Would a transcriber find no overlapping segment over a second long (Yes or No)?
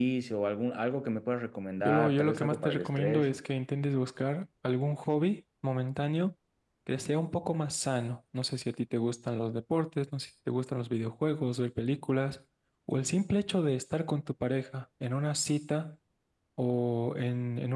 No